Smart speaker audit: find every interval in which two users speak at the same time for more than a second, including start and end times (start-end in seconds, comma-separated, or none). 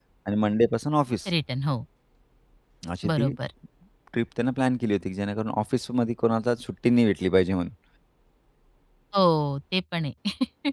none